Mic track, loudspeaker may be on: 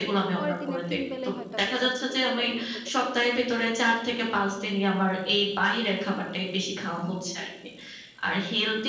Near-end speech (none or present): present